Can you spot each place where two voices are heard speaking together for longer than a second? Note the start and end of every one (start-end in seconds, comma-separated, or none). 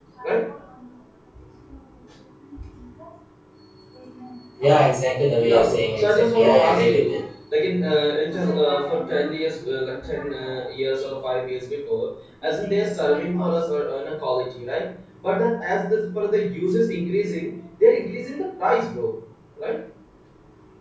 5.5-7.2